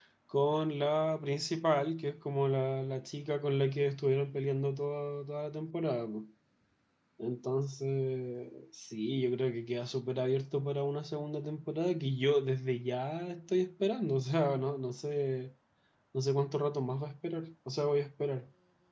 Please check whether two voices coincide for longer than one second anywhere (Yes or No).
No